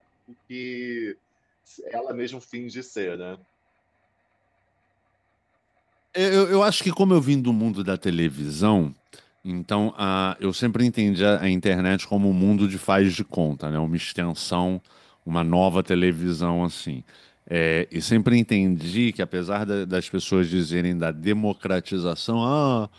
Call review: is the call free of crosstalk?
Yes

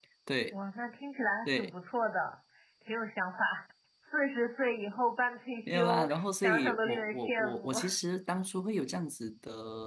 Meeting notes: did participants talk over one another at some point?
Yes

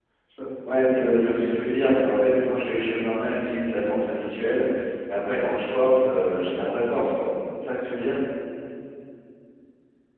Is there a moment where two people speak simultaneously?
Yes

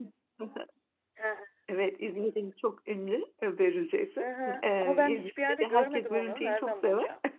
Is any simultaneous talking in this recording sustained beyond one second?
Yes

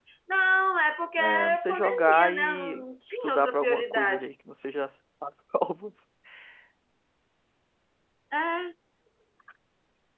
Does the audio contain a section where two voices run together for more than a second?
Yes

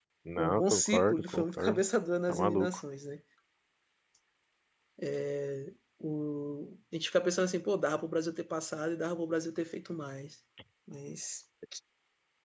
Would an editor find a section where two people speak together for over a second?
Yes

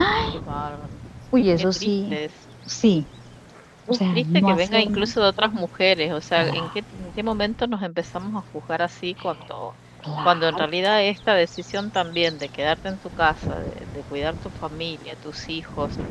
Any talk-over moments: Yes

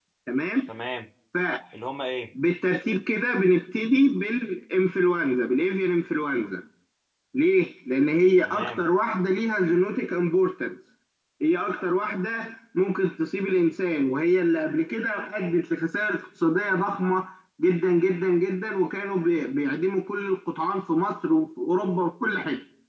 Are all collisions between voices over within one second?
Yes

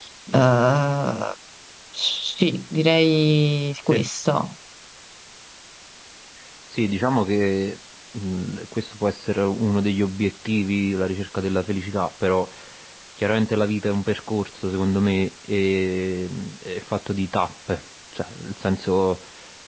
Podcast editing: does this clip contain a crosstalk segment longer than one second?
No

